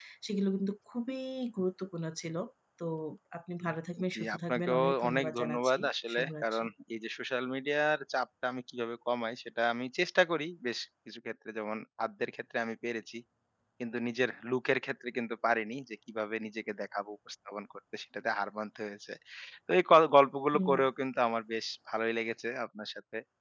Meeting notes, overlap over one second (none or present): present